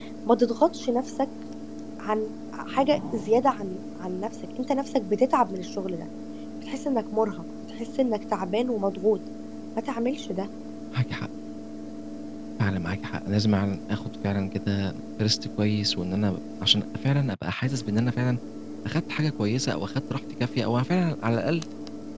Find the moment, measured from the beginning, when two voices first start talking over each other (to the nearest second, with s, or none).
none